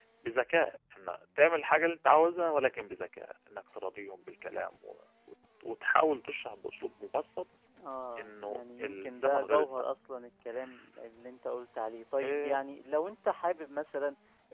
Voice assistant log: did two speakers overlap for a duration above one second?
Yes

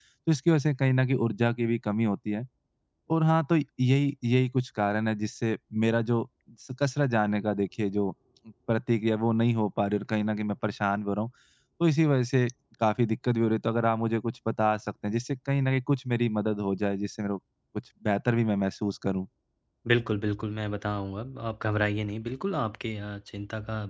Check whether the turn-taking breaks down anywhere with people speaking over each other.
No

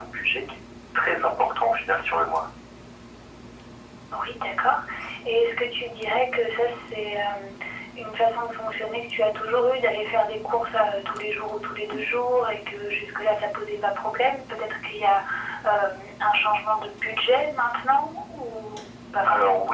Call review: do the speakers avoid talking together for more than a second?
Yes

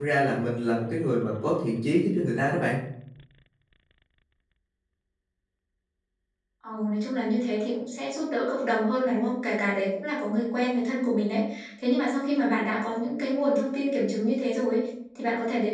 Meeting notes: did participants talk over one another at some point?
No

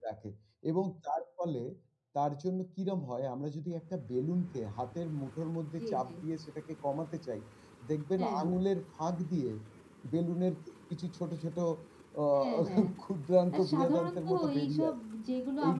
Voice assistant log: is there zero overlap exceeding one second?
No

